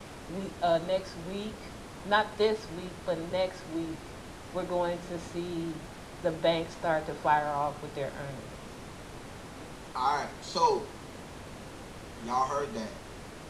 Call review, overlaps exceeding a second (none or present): none